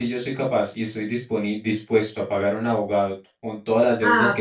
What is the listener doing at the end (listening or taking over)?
taking over